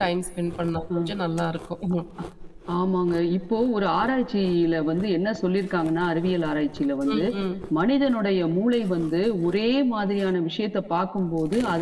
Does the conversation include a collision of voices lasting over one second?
No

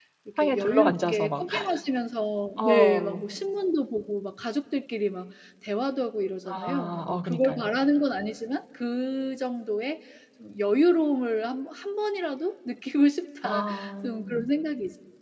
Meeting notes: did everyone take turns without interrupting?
No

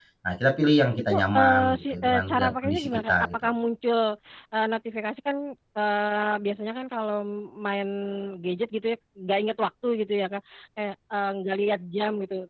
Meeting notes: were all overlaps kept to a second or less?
No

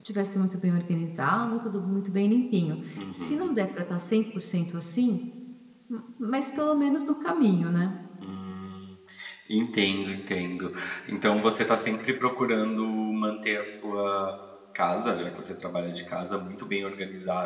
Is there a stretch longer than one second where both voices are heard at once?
No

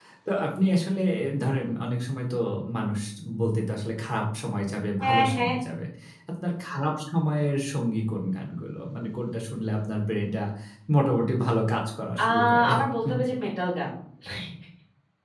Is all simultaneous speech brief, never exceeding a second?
Yes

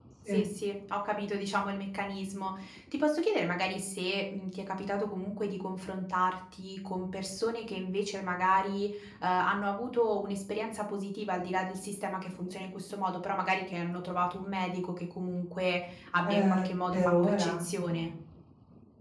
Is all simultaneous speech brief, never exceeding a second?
No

